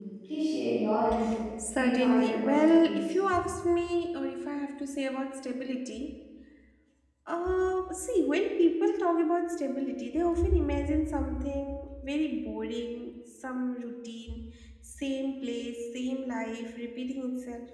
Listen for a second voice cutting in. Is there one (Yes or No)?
Yes